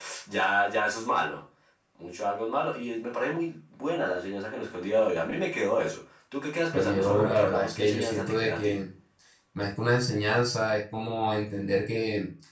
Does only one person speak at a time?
No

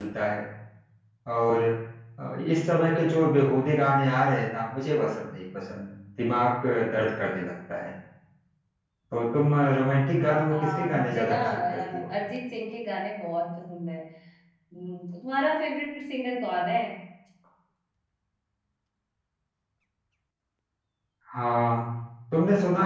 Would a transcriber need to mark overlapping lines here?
Yes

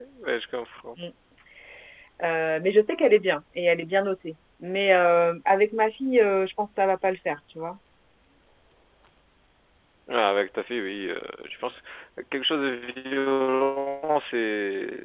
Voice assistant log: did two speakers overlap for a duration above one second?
No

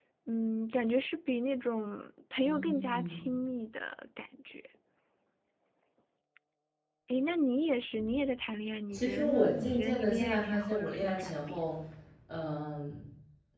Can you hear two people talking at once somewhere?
Yes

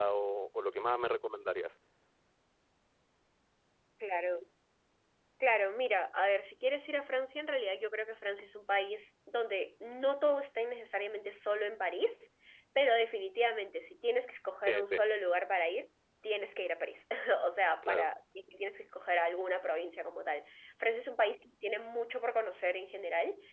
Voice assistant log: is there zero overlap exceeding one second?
Yes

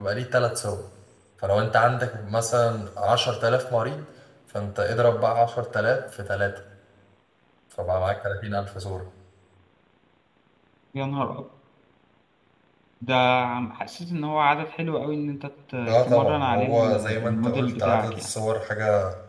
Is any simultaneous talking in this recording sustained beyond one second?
Yes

